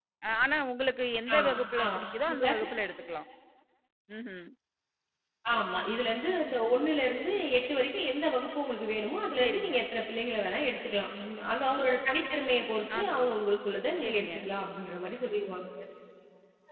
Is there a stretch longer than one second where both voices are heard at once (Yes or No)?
No